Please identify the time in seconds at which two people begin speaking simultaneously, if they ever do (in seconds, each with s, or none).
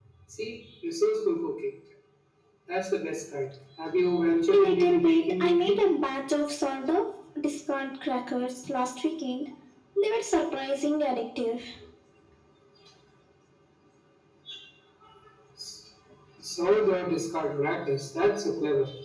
4.5 s